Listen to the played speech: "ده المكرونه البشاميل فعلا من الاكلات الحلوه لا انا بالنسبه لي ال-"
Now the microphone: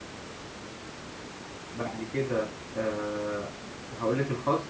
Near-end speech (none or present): present